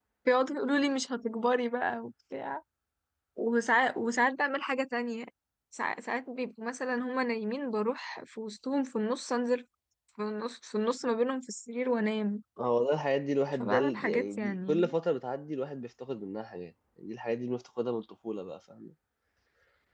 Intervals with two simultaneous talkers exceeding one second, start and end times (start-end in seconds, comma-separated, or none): 13.5-14.9